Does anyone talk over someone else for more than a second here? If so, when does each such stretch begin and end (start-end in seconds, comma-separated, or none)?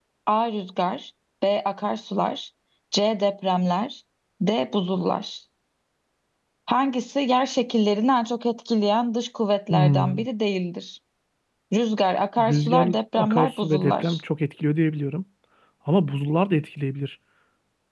12.4-14.2